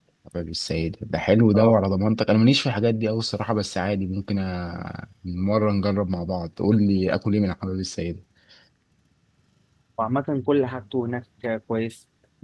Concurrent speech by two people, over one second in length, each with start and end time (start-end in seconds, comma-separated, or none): none